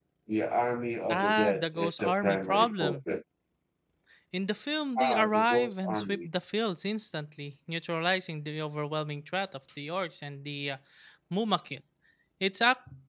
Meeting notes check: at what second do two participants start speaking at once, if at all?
1.1 s

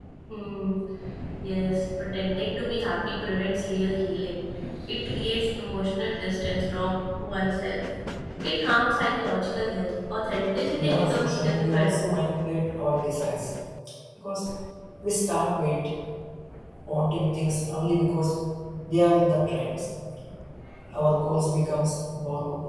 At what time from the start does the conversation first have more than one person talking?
10.8 s

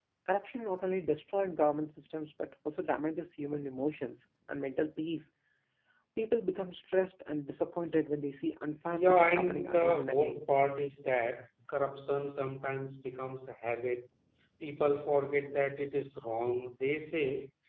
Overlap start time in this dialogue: 8.9 s

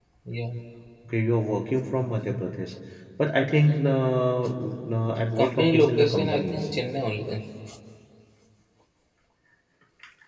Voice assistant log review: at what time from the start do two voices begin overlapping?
5.4 s

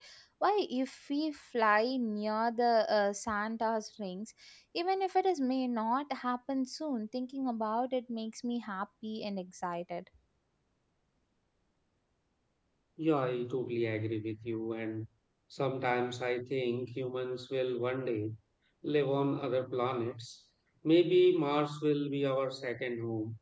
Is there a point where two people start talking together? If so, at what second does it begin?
none

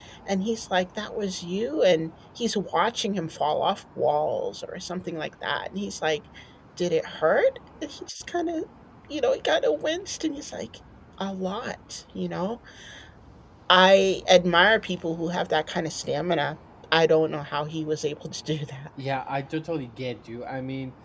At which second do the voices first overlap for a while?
none

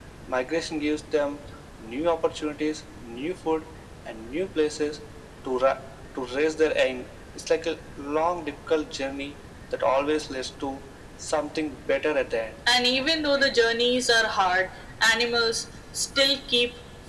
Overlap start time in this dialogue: none

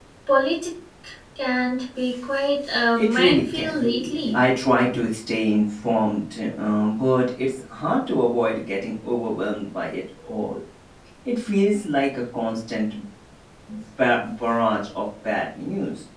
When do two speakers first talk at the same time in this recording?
2.9 s

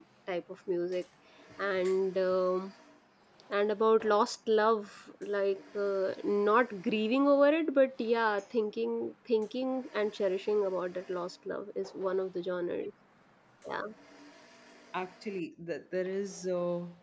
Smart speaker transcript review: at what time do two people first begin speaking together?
none

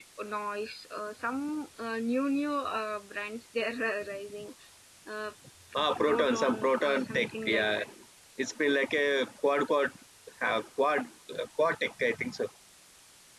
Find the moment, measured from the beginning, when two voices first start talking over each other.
6.0 s

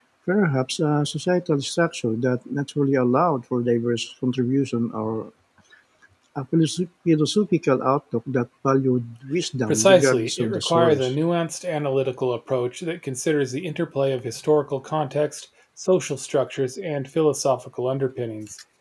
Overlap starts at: 9.7 s

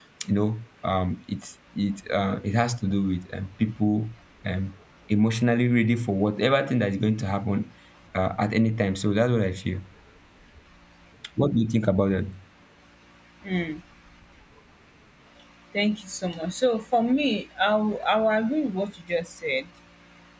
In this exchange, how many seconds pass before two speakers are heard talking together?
none

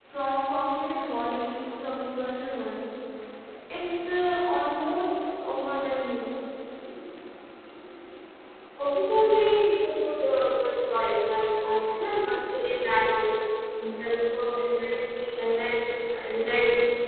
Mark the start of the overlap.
none

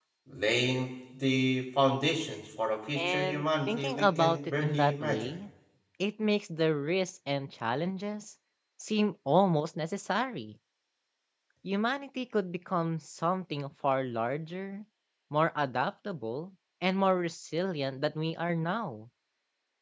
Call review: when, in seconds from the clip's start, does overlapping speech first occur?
3.0 s

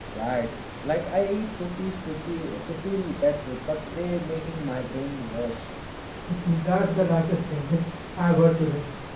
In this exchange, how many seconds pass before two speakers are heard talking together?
none

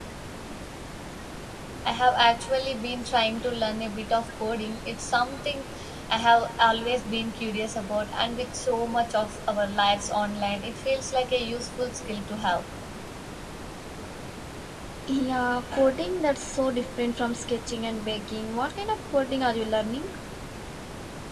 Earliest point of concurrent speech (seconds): none

